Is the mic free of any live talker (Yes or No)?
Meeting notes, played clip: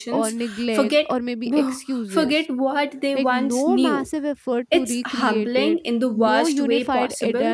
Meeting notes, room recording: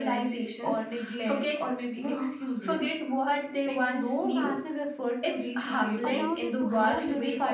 No